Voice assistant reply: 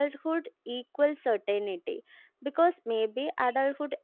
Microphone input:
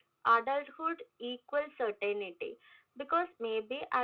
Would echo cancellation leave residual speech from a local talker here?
No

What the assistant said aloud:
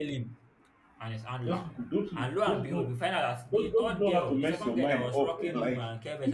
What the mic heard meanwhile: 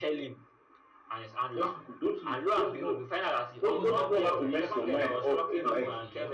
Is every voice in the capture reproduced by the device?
No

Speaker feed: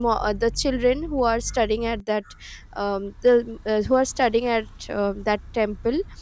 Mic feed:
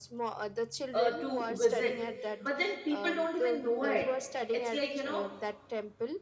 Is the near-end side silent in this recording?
No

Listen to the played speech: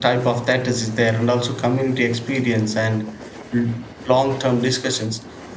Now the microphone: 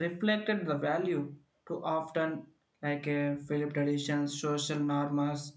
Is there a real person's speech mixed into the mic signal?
Yes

